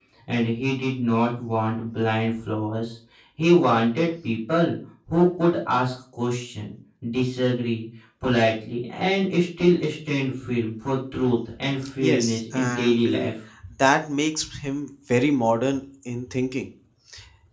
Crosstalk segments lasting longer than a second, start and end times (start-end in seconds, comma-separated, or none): 12.0-13.3